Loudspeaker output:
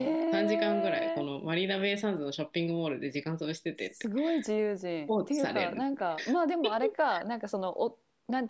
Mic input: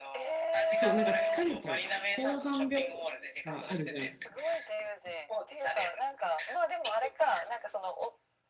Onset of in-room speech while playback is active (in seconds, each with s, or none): 0.7 s